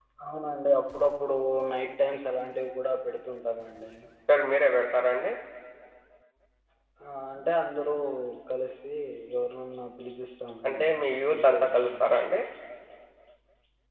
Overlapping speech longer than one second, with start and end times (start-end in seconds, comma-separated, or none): 10.7-12.0